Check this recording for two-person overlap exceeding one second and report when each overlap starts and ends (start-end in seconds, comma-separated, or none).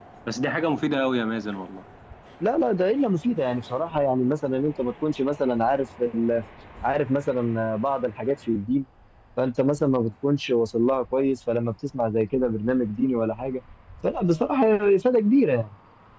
none